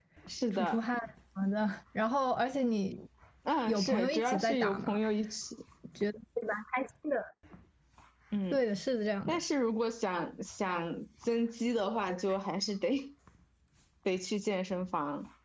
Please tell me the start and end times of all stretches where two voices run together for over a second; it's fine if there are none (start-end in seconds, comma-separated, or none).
3.7-5.0